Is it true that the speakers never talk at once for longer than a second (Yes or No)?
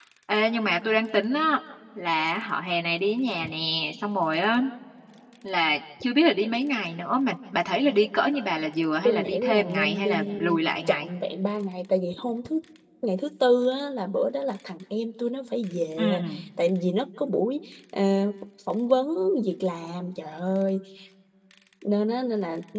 No